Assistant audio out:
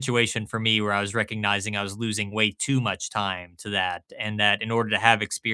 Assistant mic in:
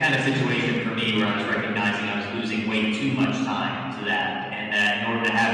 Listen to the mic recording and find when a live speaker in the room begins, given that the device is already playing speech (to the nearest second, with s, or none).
none